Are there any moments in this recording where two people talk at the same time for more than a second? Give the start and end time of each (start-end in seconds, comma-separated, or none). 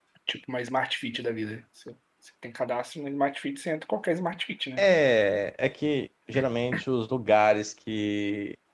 none